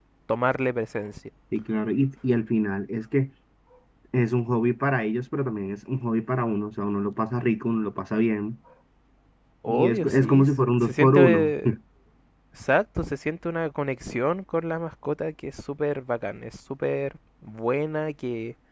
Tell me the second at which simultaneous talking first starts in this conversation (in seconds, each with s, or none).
9.7 s